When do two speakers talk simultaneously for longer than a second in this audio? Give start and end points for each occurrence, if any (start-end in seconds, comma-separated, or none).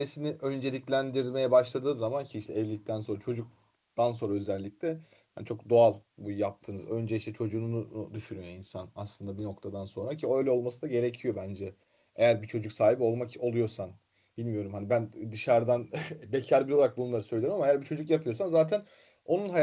none